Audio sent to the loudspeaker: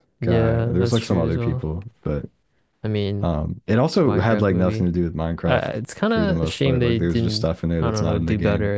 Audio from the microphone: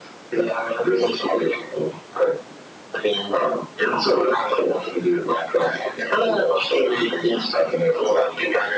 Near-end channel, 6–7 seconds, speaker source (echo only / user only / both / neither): echo only